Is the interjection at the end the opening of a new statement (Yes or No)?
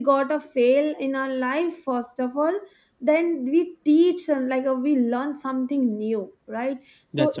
No